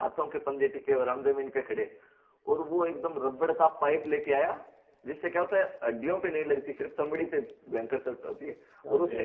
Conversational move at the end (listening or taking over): listening